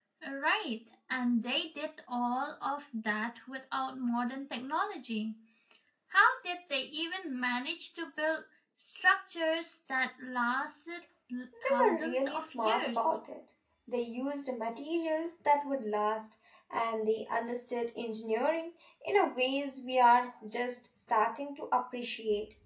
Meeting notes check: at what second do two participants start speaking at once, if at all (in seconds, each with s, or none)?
11.5 s